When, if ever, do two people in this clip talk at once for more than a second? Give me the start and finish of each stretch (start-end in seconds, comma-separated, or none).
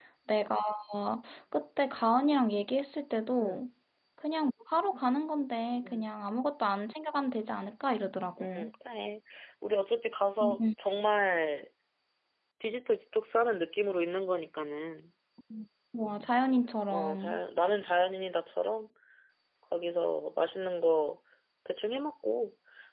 none